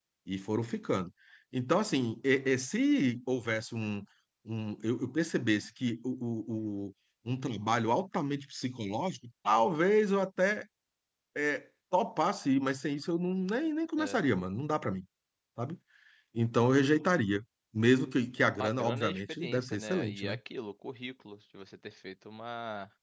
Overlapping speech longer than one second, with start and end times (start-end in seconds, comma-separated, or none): 18.6-20.4